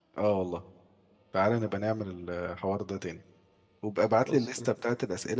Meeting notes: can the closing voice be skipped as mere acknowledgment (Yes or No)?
Yes